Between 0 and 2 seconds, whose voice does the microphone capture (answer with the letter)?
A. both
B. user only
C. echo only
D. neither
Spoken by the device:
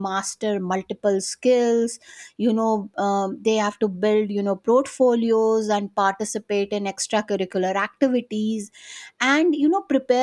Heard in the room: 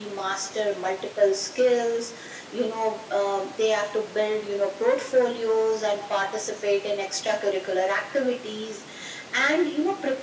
C